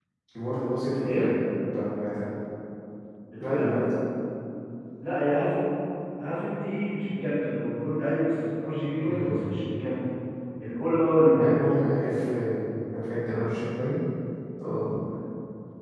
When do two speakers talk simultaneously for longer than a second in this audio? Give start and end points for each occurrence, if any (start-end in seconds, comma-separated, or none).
none